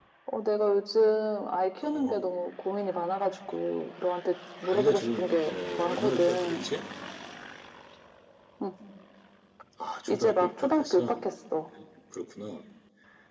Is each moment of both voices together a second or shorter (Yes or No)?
No